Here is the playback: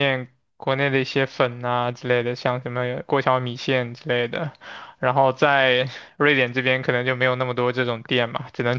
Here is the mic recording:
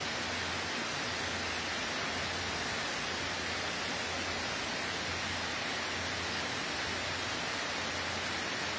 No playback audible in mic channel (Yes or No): Yes